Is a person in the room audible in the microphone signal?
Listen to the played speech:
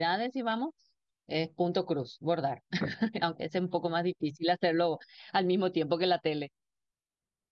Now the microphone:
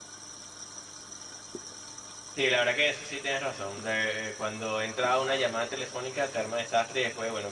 Yes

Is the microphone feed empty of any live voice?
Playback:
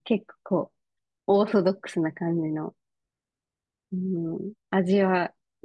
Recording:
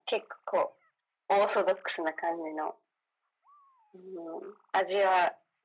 Yes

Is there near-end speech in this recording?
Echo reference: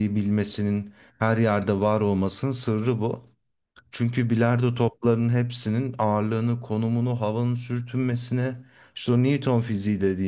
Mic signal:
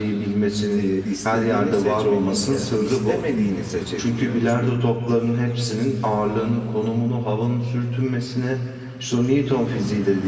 Yes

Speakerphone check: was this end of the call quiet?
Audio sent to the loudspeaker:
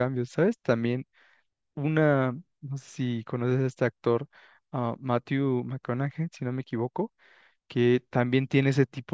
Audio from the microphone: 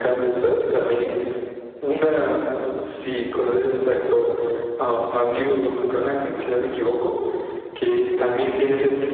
No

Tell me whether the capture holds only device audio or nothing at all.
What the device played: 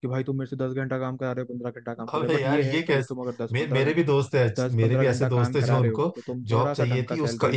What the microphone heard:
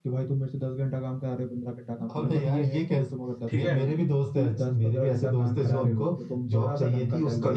No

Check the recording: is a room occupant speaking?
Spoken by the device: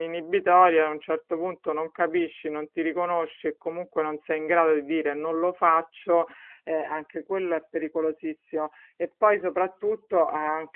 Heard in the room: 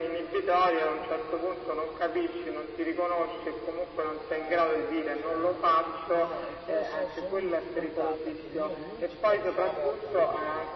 Yes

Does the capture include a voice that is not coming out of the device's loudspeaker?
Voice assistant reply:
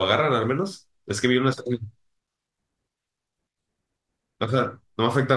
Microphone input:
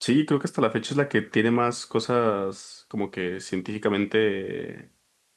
Yes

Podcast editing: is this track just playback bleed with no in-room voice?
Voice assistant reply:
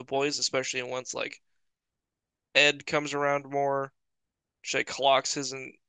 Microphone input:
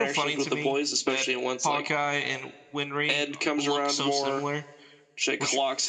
No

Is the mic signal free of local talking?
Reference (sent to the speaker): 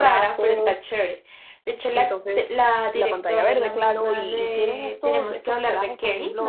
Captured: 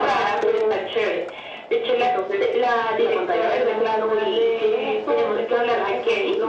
Yes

